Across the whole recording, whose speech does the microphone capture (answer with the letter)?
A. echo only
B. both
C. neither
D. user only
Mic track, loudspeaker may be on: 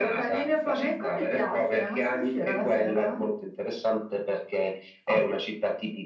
B